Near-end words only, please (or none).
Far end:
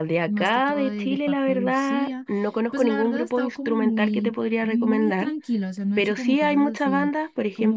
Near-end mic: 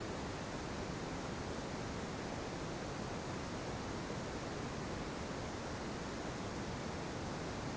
none